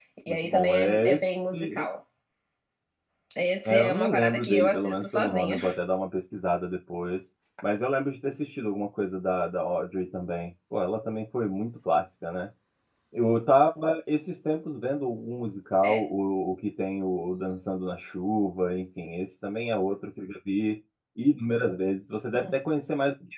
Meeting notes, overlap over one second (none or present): present